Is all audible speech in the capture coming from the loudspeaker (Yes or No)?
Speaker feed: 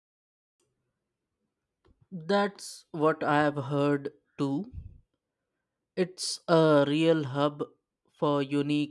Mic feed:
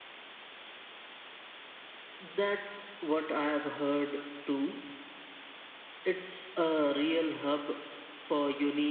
Yes